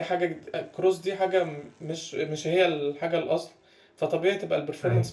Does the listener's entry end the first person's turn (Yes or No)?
No